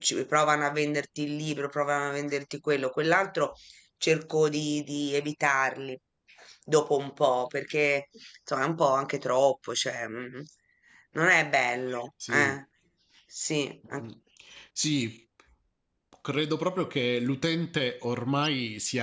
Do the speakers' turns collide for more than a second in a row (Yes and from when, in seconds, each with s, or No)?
No